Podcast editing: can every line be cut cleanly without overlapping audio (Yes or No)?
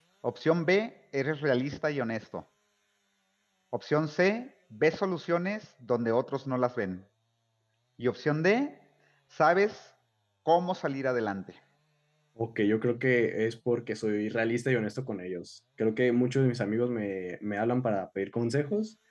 Yes